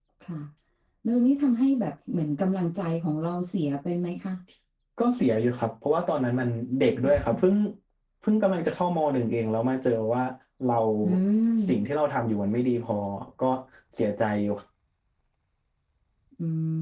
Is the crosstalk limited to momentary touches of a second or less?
Yes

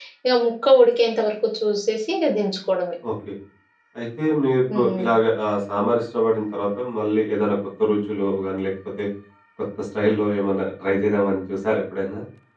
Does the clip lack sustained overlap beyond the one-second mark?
Yes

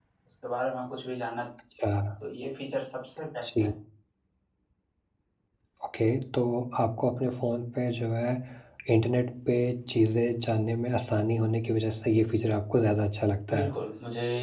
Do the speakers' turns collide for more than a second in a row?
No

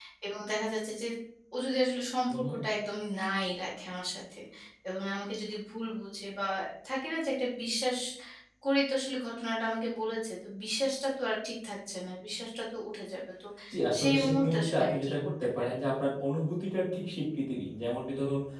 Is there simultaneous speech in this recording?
Yes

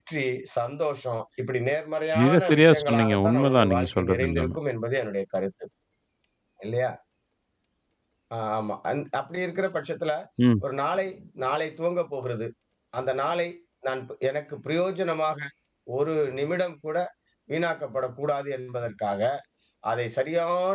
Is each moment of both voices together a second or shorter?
No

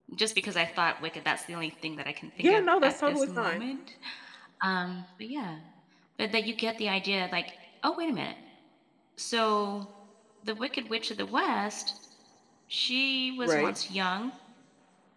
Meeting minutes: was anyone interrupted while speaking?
Yes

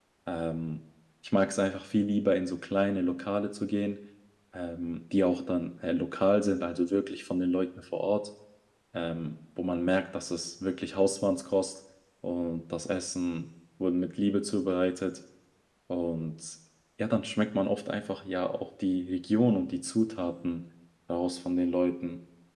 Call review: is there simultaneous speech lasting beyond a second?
No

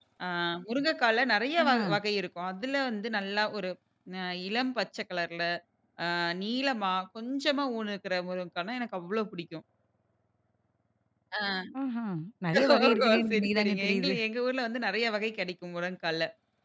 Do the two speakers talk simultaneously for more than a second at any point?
Yes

